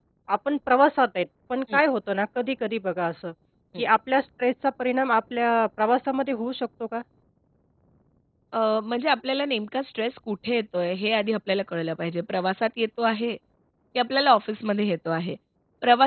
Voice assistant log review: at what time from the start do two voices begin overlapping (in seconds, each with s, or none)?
none